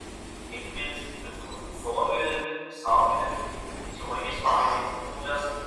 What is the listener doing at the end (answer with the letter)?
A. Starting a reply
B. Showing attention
B